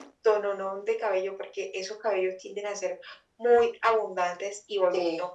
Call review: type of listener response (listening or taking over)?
listening